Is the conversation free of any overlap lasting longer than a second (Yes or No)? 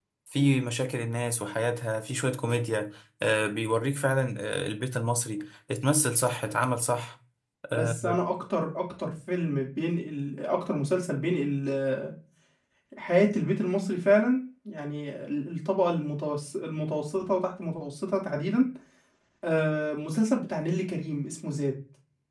Yes